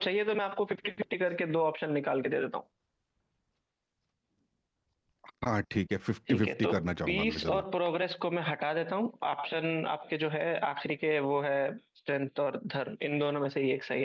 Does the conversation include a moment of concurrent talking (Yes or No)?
Yes